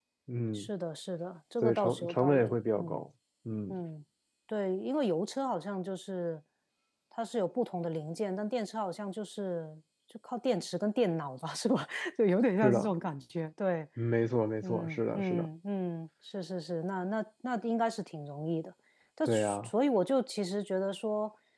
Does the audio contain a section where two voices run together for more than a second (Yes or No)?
Yes